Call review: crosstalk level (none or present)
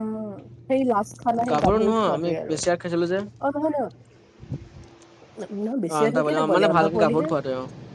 present